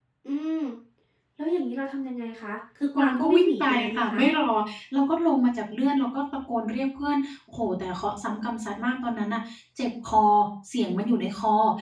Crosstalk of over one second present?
Yes, from 3.0 s

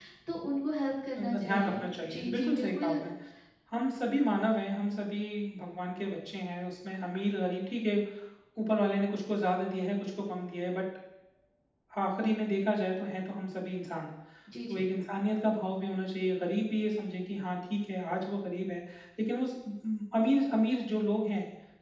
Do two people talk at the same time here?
Yes, from 1.2 s

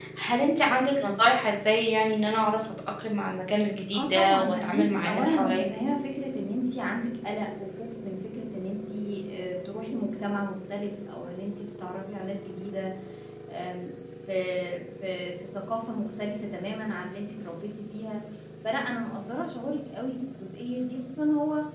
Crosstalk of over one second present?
Yes, from 3.9 s

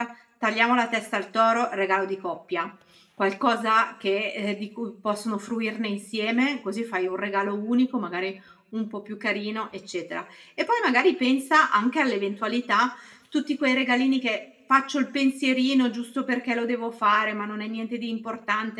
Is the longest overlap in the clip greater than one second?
No

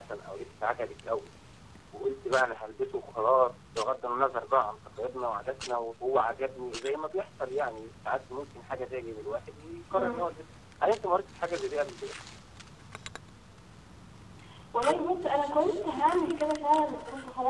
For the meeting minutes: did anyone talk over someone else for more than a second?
No

